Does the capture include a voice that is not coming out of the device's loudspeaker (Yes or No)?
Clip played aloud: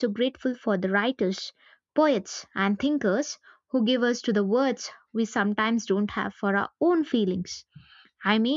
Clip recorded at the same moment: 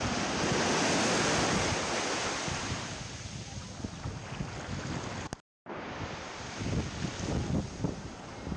No